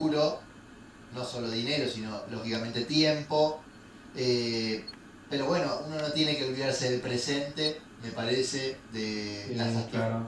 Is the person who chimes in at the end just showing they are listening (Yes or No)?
Yes